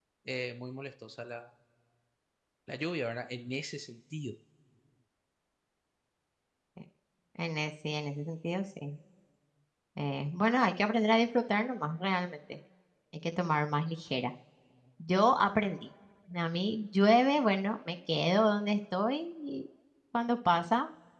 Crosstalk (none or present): none